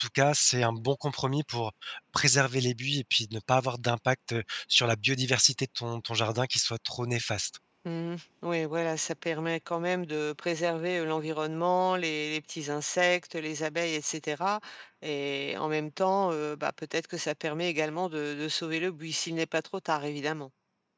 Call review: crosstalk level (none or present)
none